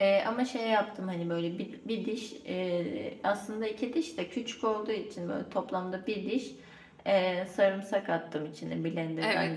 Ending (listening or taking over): taking over